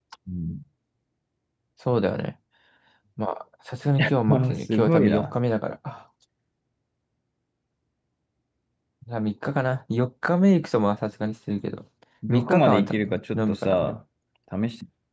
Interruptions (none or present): present